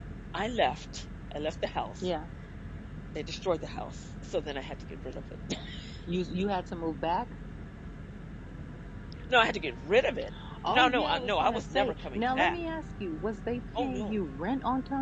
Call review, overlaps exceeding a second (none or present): present